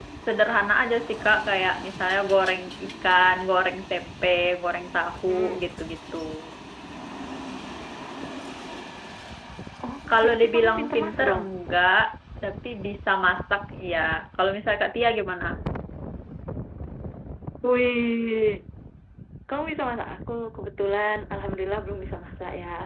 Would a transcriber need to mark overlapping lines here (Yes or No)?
Yes